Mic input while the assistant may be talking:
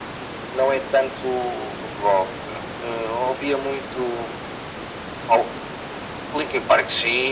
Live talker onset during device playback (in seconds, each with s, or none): none